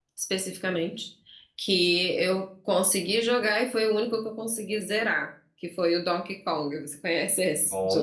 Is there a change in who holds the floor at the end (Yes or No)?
Yes